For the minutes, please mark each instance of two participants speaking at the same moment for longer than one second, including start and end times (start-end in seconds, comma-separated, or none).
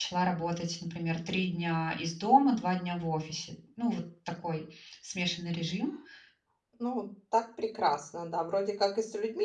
none